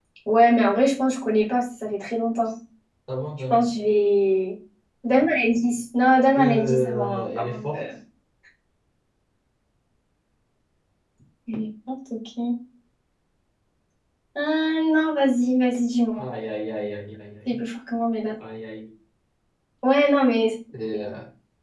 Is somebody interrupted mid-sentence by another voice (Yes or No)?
Yes